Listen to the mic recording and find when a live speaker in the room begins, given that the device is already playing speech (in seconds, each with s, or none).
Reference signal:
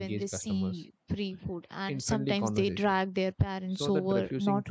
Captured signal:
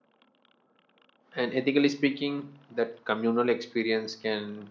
1.3 s